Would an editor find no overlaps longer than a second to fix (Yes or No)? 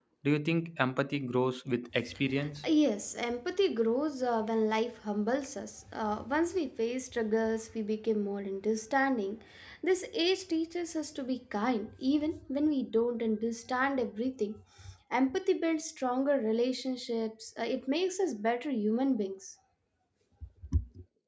Yes